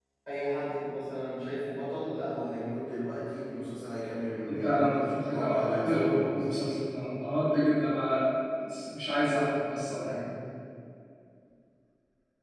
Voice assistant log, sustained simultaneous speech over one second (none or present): present